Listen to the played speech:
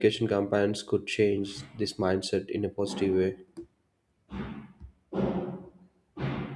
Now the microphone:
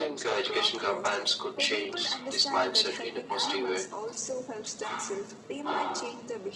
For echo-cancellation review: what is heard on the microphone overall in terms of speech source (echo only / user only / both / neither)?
both